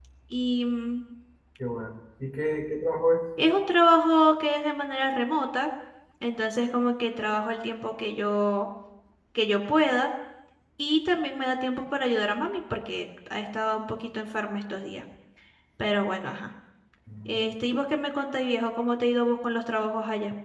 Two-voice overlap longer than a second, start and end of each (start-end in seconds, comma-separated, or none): none